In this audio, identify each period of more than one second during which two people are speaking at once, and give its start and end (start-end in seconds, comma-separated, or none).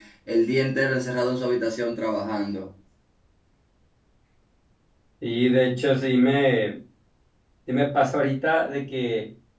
none